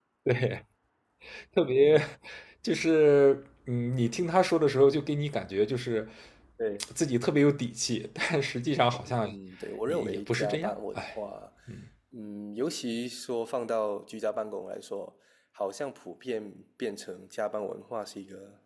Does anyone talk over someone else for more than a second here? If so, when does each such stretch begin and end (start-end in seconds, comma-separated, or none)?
9.8-11.2